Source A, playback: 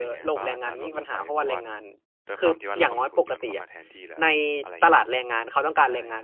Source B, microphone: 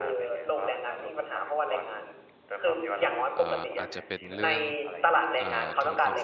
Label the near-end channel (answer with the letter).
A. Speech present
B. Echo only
A